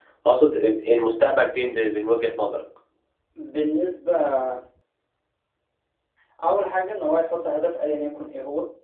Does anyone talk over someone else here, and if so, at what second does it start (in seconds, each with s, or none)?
none